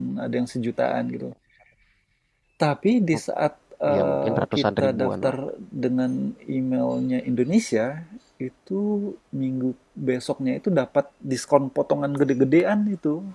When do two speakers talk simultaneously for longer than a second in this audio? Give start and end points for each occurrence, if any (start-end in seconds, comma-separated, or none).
3.9-5.3